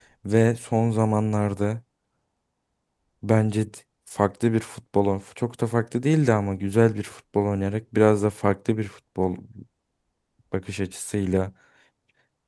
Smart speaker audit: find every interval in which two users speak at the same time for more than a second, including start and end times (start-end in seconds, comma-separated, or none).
none